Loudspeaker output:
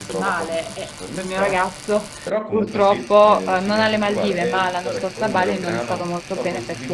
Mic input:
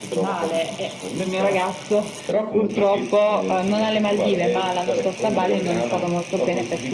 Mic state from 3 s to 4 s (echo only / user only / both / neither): echo only